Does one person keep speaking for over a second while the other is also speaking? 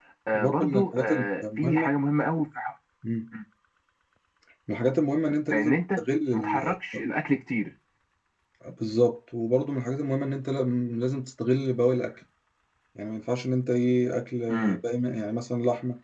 Yes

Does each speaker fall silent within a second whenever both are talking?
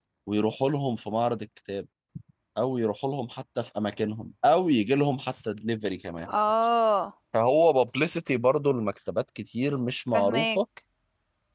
Yes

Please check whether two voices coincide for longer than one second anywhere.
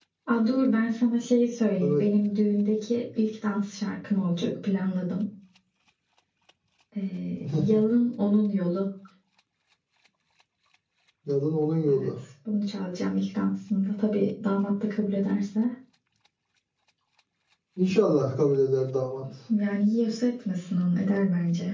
No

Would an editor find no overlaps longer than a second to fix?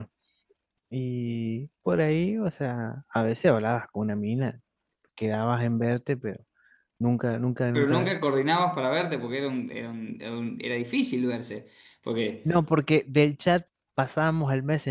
Yes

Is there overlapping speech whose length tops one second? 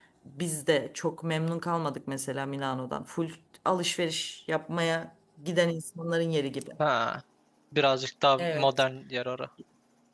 No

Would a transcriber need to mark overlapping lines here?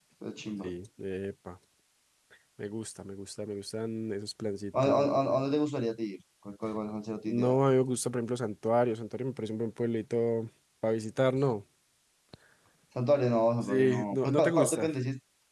Yes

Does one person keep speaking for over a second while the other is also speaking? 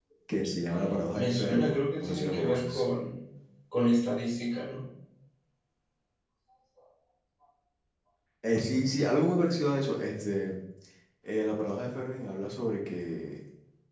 Yes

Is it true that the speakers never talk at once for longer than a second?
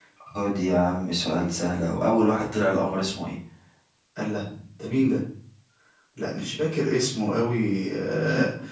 Yes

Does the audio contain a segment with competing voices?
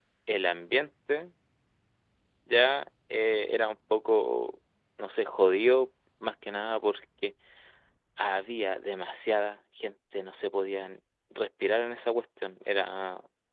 No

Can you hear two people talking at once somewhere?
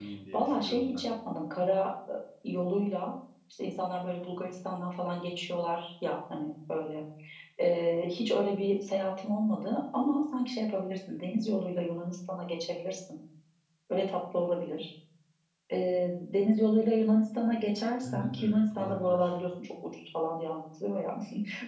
Yes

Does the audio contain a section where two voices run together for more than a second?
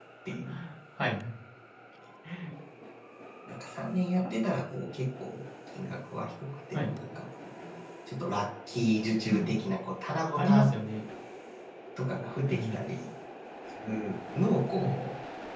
No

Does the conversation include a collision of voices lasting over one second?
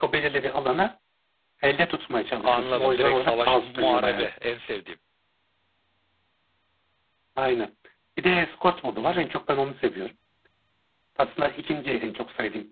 Yes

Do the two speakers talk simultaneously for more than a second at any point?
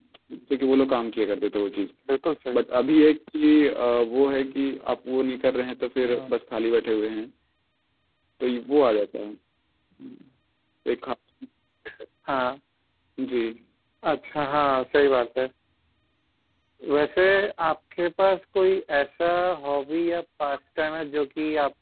No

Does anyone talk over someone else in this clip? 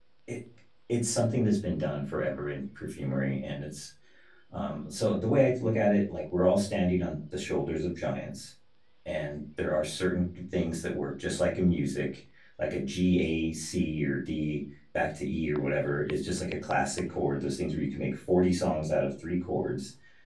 No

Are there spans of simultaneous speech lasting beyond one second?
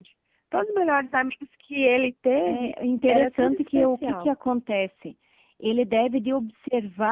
Yes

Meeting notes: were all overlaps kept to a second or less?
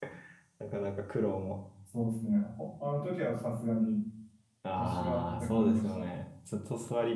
No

